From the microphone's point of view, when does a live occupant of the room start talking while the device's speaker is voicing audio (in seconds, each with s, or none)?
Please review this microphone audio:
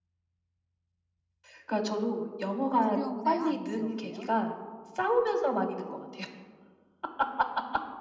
2.8 s